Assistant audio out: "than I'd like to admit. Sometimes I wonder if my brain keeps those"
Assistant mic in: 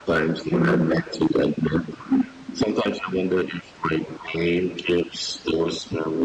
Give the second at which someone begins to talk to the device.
none

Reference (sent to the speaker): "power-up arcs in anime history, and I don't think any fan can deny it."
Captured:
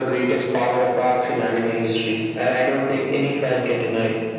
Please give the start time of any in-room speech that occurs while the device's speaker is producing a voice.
none

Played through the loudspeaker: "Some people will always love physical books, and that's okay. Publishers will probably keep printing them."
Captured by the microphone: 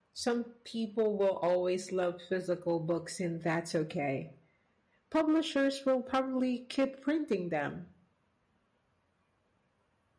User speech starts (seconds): none

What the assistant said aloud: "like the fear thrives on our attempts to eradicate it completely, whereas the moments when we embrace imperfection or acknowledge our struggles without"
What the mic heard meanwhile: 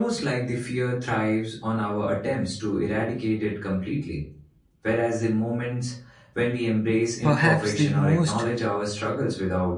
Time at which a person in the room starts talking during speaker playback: 7.2 s

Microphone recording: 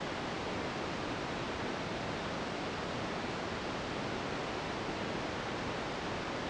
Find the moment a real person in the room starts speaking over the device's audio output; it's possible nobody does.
none

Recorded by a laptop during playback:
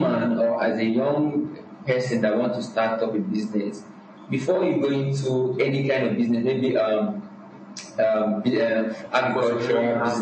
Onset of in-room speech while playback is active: 9.2 s

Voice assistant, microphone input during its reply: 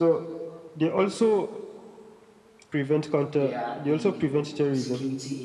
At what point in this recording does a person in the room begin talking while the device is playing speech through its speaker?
3.4 s

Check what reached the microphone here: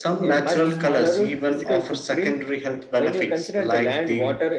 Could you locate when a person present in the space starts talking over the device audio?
none

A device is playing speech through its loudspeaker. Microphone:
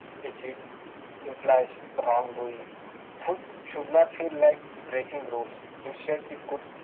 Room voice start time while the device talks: none

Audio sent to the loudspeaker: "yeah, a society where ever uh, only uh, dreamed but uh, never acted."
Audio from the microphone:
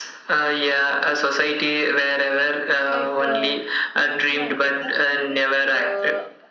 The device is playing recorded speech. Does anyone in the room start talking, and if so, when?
2.9 s

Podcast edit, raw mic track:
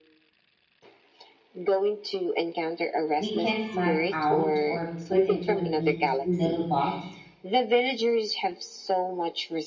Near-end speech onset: 3.2 s

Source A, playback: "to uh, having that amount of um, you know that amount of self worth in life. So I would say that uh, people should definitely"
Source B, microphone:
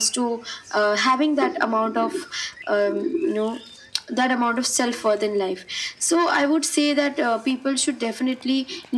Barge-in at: none

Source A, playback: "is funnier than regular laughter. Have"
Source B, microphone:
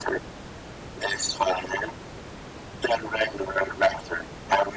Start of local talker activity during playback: none

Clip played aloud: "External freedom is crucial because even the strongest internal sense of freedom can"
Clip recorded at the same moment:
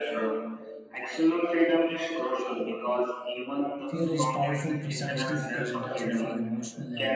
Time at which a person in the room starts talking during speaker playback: 3.8 s

